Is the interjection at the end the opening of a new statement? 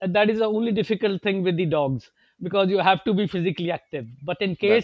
No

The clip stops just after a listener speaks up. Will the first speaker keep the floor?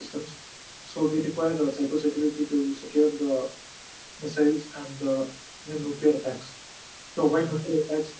Yes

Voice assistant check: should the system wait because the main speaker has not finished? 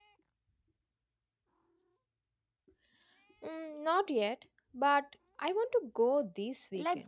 No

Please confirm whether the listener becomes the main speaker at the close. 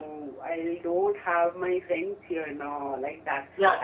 Yes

